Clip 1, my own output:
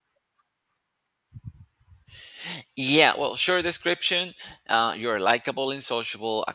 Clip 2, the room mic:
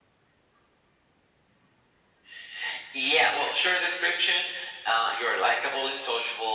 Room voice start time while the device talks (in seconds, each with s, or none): none